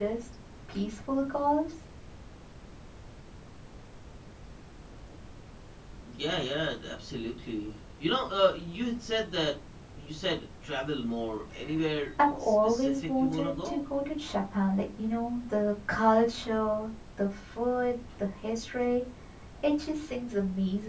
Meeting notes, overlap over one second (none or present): present